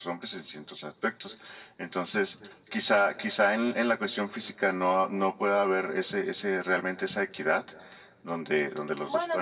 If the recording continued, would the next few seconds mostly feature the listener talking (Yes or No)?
Yes